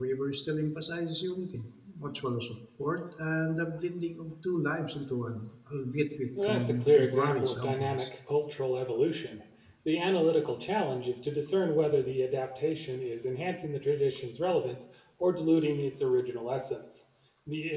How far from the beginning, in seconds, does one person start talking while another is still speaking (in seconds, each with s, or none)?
6.4 s